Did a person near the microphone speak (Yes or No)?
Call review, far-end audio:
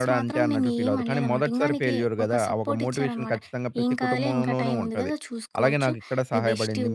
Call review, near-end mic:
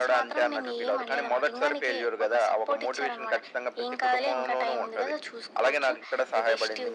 No